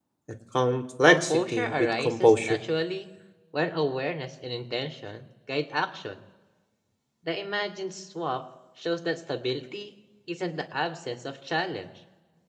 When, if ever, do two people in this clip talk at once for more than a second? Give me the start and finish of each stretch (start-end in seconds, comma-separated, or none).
1.1-2.6